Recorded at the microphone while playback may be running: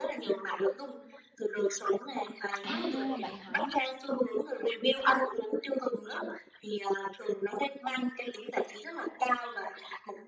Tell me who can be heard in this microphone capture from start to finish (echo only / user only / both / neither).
both